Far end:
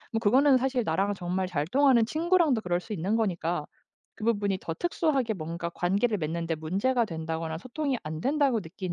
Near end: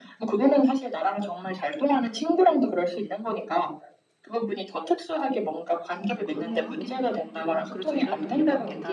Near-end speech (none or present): present